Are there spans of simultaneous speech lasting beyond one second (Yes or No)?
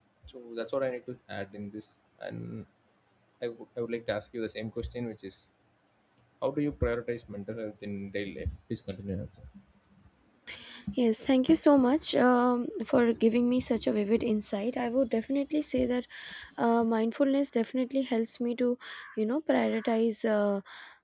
No